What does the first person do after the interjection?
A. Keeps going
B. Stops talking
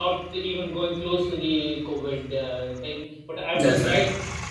A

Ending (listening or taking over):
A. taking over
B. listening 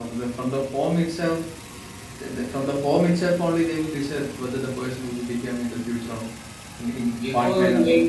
A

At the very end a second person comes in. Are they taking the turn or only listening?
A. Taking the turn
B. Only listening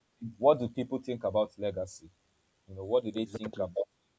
B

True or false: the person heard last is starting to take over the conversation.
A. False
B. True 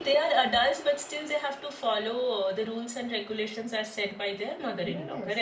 B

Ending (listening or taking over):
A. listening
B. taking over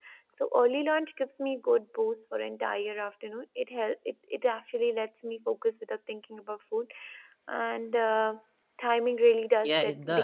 B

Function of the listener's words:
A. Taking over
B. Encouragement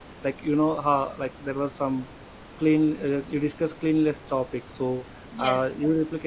B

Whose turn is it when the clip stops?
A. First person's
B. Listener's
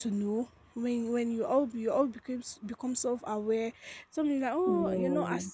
A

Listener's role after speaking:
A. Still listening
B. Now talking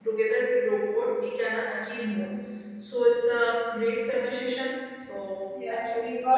B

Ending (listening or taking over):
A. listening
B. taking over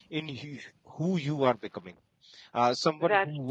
A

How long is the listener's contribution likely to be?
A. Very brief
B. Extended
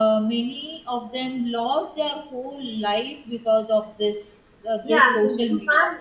B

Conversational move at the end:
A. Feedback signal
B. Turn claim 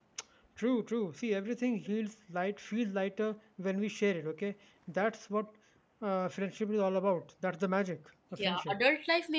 B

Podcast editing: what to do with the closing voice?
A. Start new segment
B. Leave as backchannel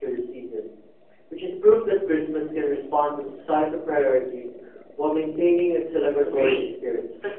A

